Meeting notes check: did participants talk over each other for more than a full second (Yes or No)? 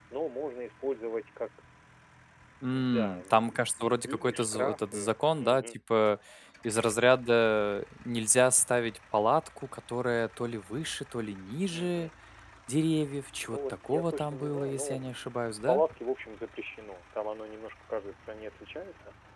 Yes